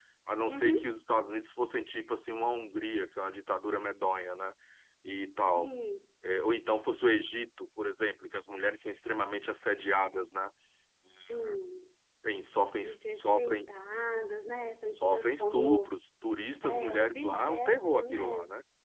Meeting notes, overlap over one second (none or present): present